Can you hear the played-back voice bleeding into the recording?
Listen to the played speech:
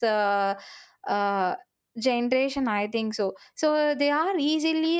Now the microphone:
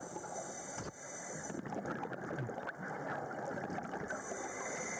No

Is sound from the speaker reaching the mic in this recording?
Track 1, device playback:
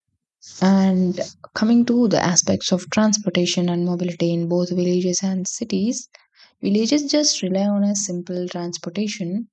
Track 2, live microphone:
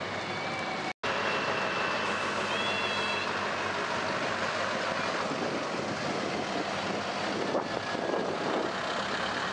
No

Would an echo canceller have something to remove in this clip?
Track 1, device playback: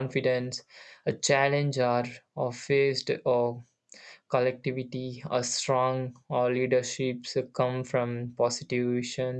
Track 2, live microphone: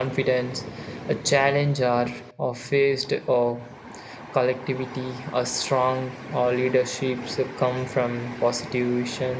Yes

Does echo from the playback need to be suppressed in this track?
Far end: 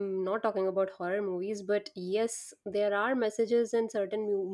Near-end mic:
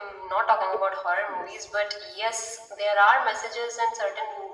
Yes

